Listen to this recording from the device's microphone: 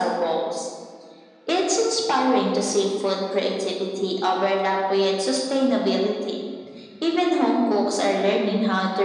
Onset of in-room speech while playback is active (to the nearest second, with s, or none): none